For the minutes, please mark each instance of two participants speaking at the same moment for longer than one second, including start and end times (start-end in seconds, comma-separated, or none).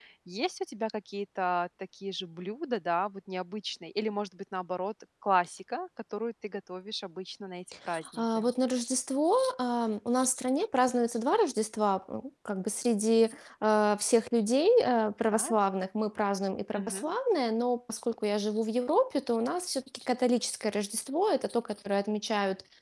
none